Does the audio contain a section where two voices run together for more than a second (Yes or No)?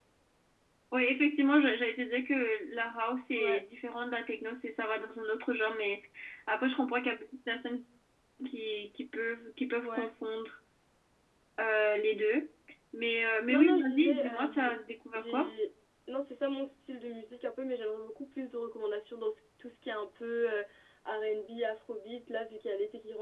Yes